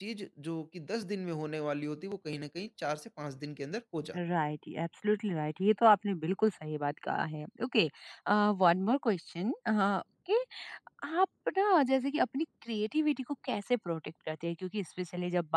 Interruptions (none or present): none